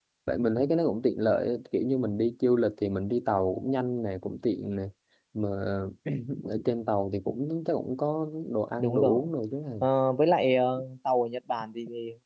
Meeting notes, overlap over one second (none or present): none